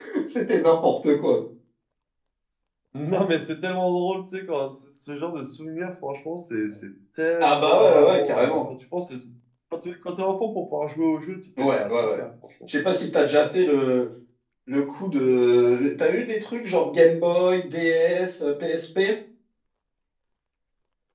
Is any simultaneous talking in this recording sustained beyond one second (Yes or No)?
Yes